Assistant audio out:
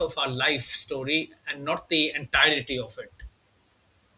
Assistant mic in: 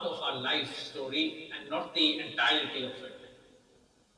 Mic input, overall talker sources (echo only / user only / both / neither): echo only